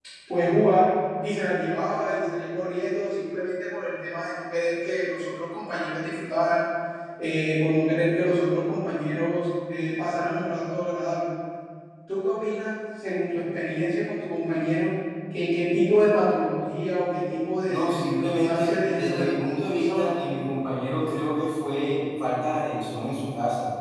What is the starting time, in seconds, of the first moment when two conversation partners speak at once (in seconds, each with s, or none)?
17.7 s